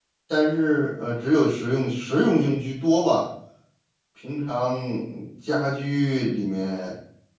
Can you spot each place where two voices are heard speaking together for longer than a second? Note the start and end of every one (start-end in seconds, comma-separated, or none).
none